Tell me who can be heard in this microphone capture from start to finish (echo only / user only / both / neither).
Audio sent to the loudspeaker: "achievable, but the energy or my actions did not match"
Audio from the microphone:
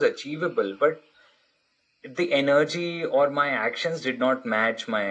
echo only